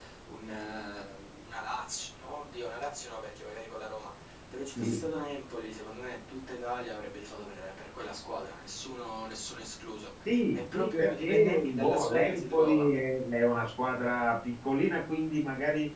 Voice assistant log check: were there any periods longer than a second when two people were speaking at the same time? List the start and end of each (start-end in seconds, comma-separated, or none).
10.5-12.9